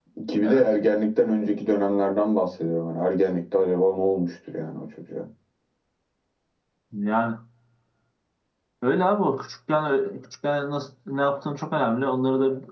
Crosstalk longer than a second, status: none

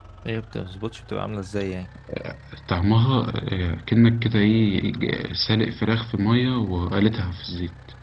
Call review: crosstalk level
none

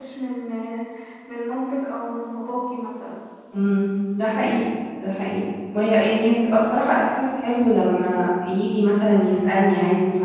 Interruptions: none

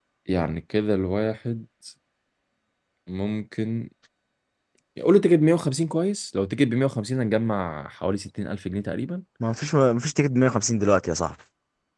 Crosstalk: none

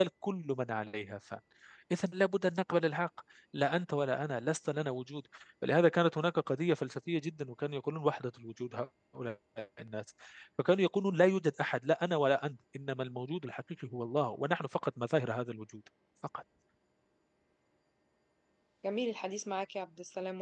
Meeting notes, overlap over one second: none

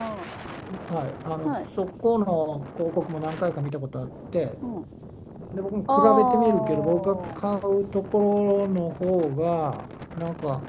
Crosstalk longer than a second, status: present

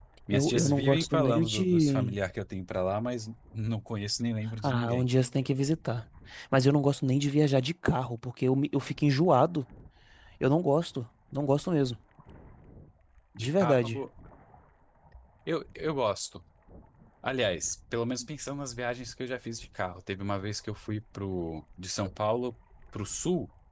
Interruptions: present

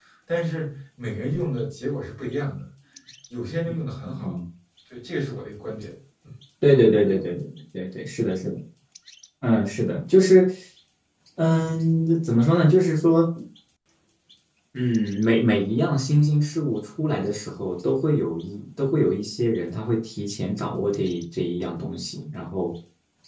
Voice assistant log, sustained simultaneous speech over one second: none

